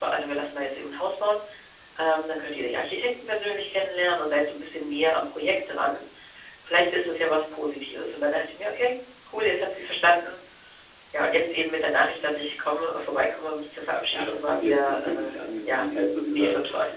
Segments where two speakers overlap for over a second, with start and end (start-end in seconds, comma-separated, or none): 14.1-15.9